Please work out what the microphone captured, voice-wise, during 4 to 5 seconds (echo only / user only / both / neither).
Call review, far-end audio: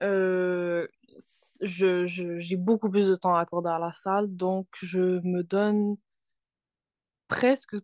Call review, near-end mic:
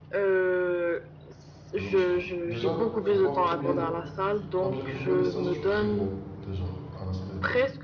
both